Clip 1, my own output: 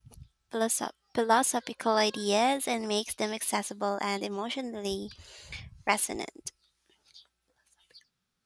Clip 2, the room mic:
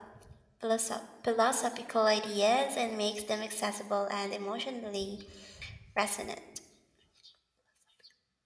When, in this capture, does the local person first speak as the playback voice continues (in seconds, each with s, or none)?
none